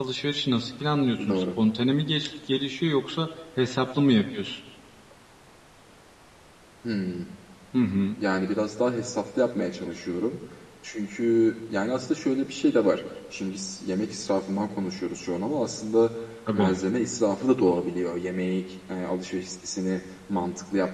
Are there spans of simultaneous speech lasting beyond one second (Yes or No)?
No